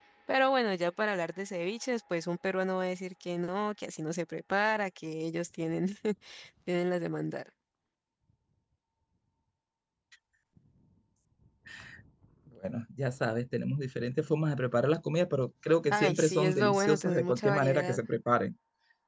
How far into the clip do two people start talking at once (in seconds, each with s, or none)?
15.9 s